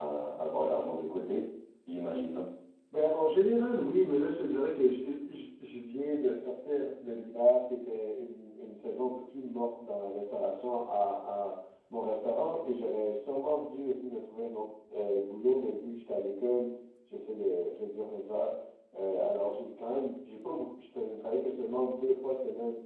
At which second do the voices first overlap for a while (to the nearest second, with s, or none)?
none